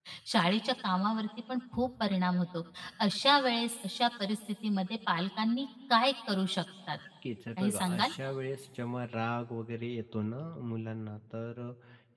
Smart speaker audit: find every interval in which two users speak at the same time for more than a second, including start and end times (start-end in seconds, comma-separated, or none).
none